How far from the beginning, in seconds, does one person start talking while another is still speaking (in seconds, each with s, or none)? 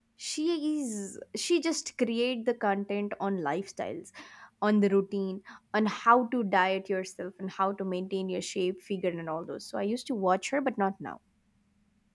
none